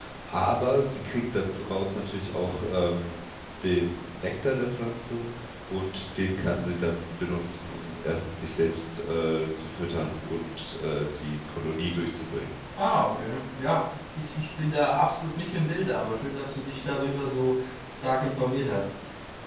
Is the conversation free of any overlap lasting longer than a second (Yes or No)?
Yes